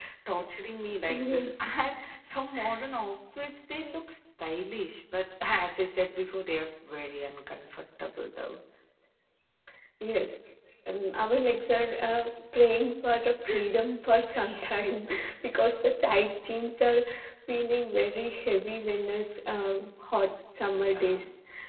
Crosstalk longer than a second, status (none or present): none